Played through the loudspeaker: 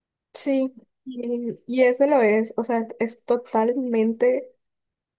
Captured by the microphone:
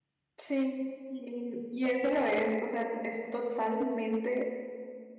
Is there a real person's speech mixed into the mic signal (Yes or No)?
No